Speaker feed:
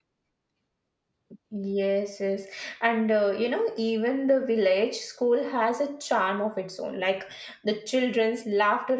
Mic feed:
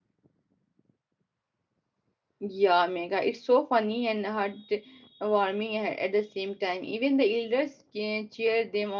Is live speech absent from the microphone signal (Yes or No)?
No